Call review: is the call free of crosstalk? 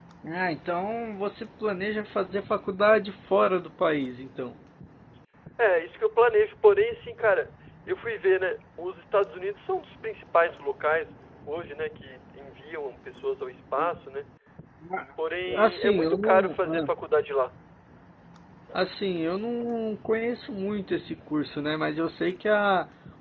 No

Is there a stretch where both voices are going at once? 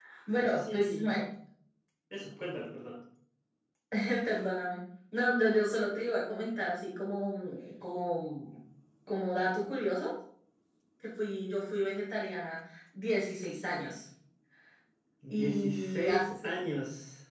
Yes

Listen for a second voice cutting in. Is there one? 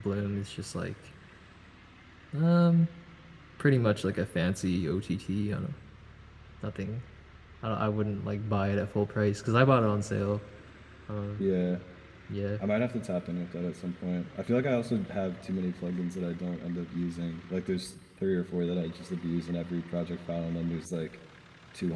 No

